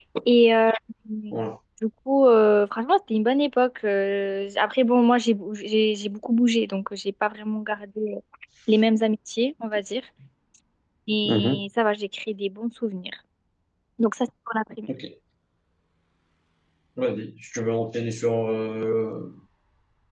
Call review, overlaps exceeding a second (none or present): none